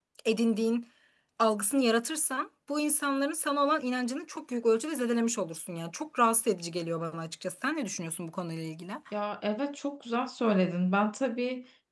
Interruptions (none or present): none